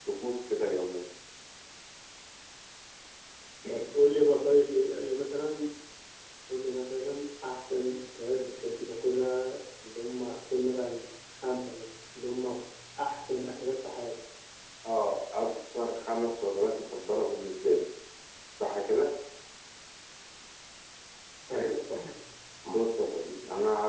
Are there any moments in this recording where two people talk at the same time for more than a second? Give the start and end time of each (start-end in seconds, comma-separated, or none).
none